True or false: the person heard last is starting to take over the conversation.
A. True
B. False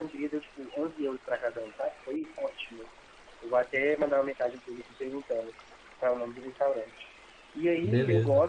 B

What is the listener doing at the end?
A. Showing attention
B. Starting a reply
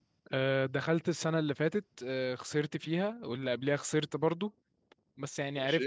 A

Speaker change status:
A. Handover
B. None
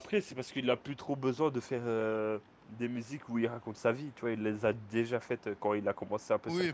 A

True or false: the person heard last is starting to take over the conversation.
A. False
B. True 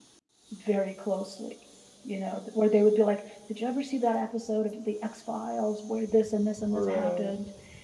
A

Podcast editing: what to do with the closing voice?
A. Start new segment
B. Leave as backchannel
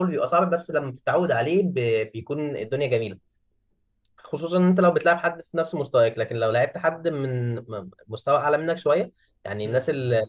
B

